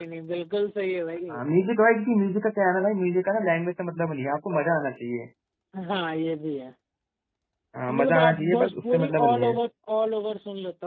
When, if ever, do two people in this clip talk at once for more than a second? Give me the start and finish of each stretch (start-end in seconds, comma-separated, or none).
7.9-9.5